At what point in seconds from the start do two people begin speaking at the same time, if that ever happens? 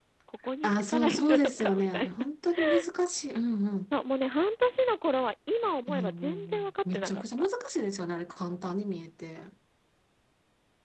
0.6 s

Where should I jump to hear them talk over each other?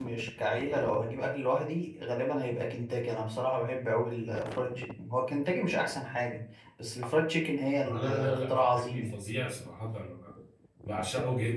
7.8 s

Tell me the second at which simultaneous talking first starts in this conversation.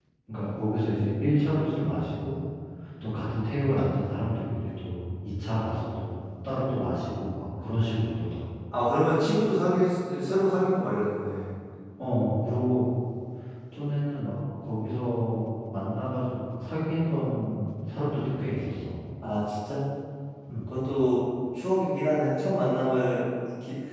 none

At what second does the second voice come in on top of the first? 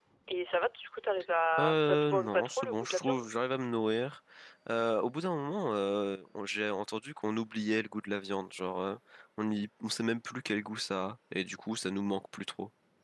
1.5 s

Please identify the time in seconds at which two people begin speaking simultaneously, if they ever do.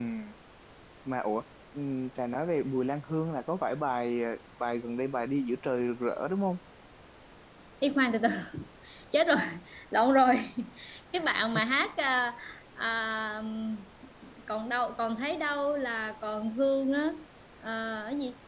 none

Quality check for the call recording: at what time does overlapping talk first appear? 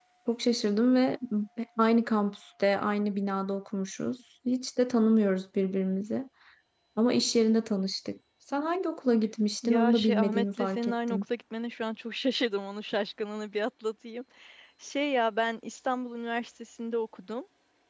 9.6 s

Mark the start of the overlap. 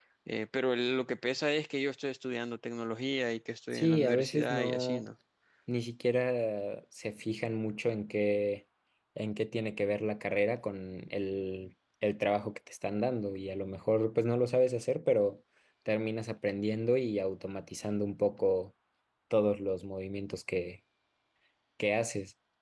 3.7 s

